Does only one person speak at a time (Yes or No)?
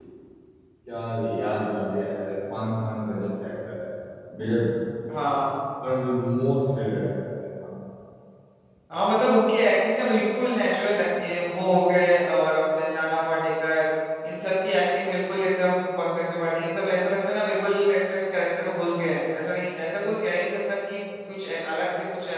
Yes